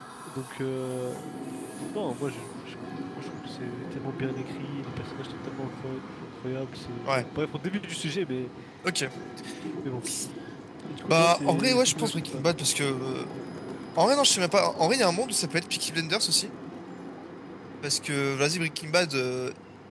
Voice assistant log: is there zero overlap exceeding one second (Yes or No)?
No